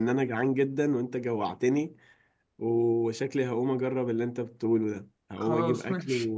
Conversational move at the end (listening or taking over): listening